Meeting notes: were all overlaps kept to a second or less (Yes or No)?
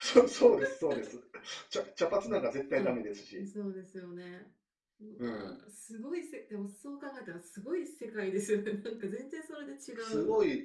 Yes